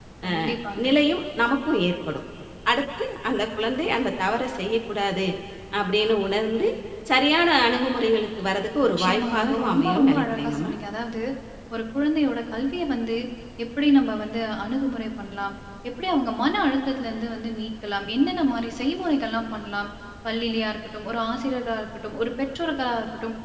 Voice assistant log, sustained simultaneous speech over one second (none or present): present